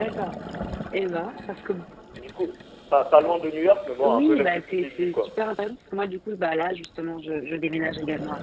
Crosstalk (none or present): present